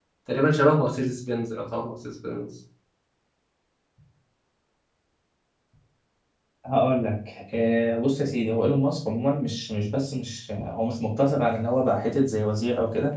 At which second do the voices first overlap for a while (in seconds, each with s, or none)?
none